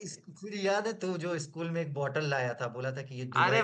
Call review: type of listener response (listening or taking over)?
taking over